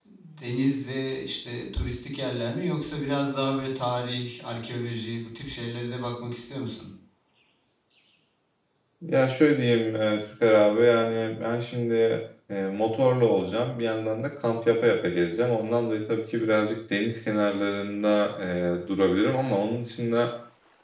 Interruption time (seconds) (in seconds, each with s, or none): none